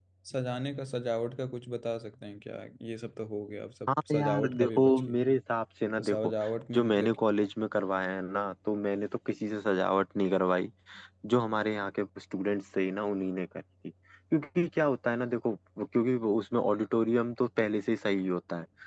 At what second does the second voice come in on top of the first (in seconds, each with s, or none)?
3.9 s